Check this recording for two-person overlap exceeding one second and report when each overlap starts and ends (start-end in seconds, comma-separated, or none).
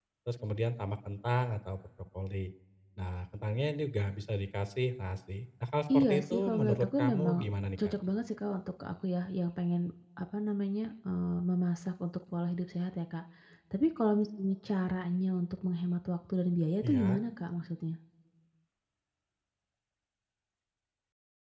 5.9-7.3